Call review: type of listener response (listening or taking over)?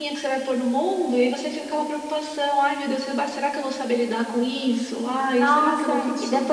taking over